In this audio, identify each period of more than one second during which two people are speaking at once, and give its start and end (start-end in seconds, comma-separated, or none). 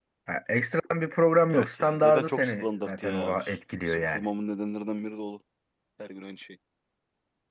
1.5-3.4